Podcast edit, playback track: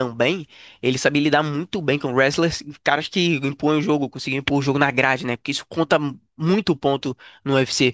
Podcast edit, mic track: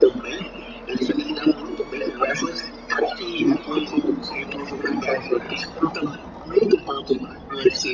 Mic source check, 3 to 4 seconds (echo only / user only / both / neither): echo only